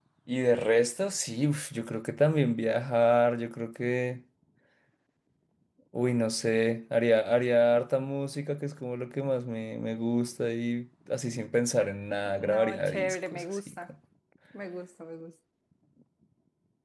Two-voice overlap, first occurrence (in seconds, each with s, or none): 12.2 s